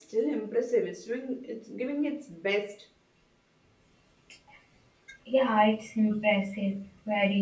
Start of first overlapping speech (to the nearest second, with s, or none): none